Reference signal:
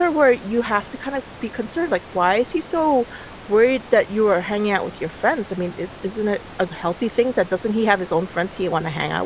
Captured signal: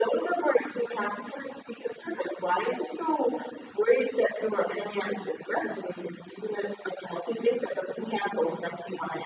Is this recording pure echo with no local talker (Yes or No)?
Yes